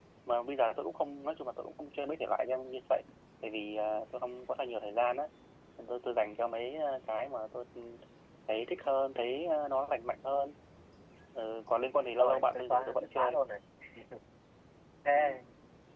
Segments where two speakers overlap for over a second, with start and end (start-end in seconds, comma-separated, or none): 12.2-13.4